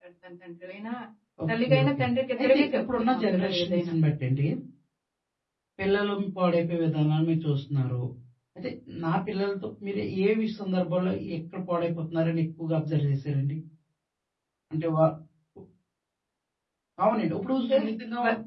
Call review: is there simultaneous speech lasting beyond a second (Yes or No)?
Yes